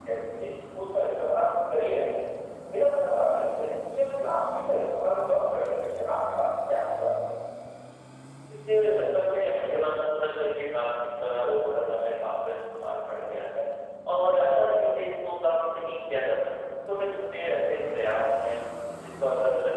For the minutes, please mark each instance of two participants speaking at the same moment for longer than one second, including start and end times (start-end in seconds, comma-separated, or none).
none